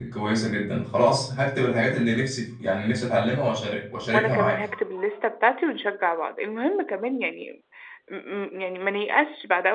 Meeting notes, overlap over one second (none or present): none